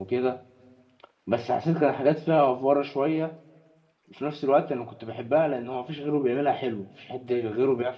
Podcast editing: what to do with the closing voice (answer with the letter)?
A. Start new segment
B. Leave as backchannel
B